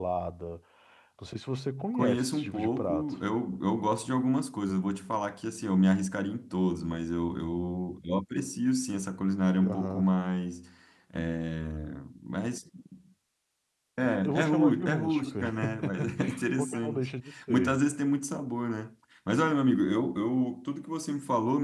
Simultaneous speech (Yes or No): Yes